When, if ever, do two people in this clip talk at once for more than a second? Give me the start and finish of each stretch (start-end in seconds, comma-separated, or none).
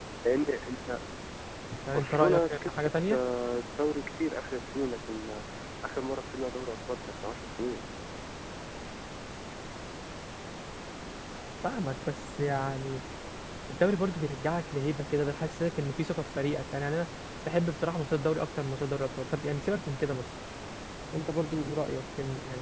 1.9-3.2